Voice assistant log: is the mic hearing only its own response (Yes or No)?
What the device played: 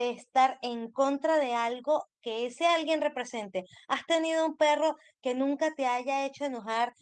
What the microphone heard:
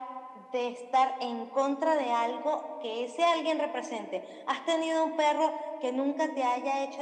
Yes